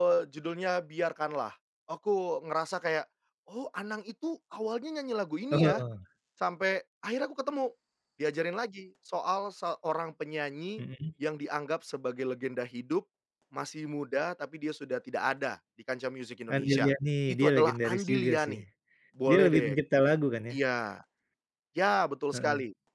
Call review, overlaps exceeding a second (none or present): present